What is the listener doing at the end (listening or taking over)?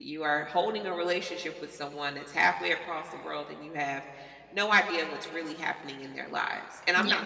listening